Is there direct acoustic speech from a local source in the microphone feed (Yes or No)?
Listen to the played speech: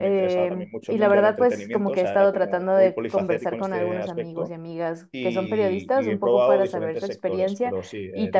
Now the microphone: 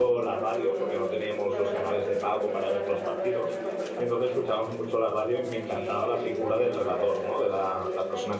Yes